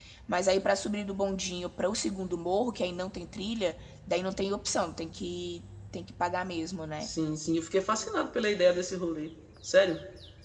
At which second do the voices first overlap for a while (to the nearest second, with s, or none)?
none